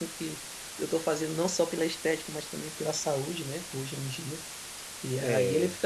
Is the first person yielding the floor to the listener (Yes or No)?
No